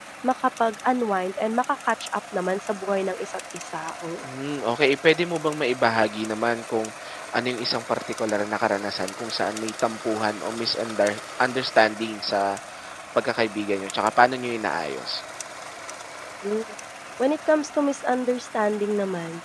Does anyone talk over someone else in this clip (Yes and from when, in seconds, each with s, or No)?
No